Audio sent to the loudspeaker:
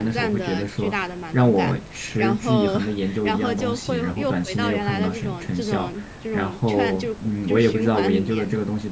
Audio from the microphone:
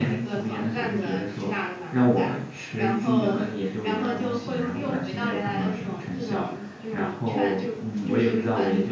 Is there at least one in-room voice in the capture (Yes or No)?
No